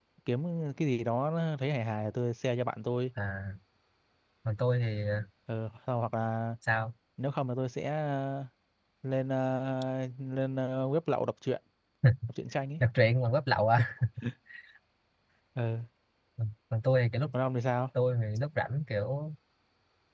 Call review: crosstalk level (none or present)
none